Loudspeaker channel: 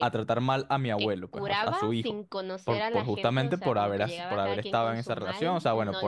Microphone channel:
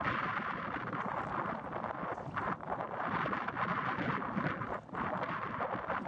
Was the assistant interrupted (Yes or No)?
No